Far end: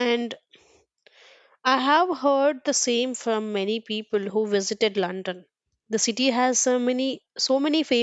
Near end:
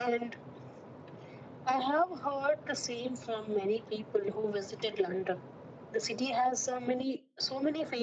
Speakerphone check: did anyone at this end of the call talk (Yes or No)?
No